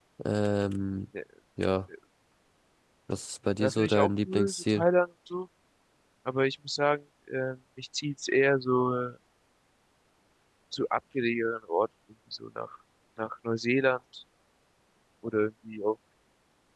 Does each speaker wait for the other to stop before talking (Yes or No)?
No